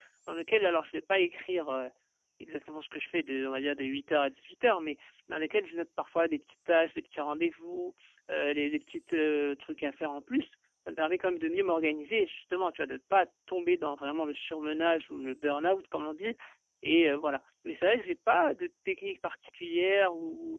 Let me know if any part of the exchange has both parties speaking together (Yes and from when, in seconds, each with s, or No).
No